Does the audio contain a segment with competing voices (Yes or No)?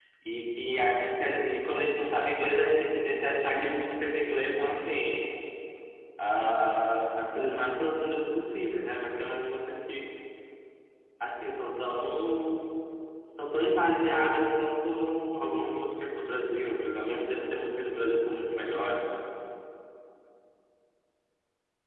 No